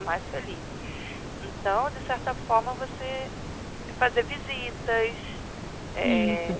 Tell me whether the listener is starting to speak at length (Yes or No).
No